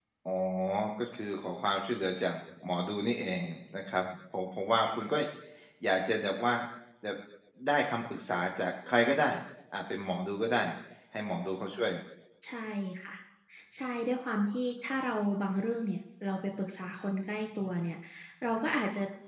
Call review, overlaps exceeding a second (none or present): none